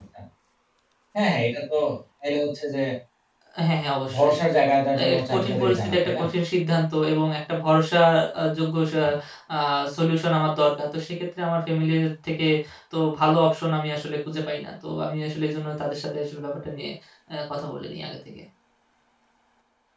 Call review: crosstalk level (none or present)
present